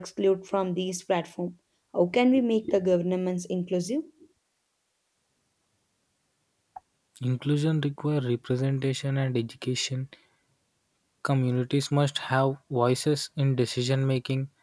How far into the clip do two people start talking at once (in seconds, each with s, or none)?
none